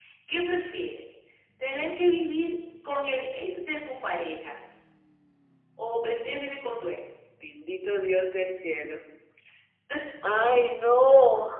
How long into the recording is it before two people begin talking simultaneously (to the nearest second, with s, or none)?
none